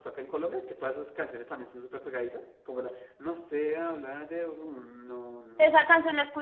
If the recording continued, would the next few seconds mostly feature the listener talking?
Yes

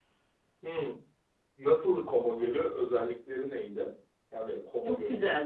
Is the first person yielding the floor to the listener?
Yes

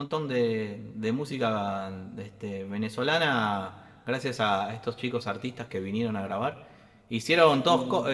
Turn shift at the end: No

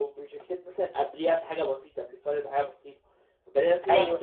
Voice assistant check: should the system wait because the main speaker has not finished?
Yes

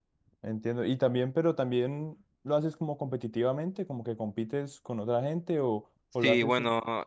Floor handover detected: Yes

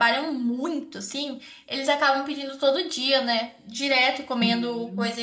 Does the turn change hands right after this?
No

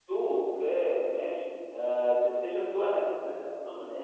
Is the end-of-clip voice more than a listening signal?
No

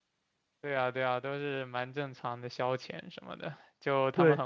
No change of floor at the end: Yes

